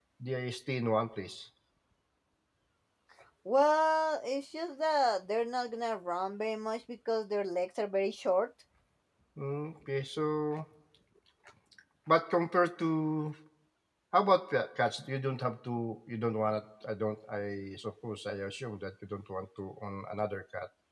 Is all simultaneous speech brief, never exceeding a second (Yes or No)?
Yes